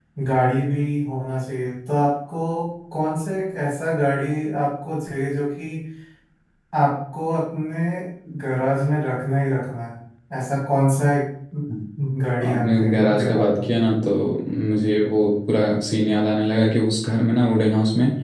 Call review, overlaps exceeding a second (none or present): present